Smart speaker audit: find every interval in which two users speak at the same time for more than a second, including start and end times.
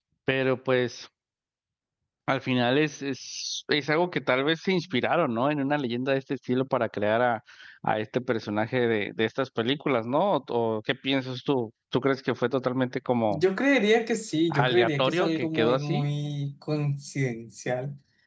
14.5-16.0

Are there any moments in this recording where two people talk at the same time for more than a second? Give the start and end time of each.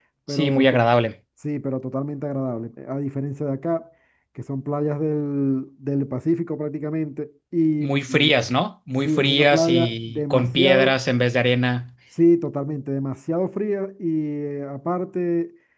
9.1-11.0

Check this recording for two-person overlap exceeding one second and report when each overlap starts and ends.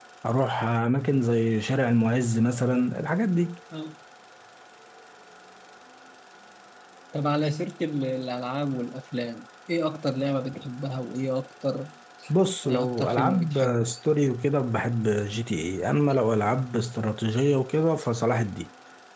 12.6-13.9

